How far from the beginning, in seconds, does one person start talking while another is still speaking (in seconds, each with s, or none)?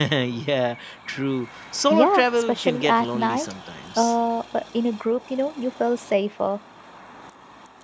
1.9 s